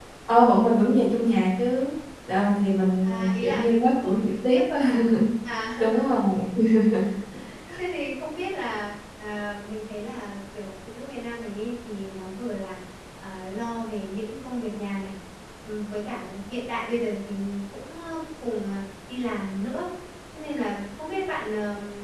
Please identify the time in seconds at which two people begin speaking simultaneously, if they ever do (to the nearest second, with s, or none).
3 s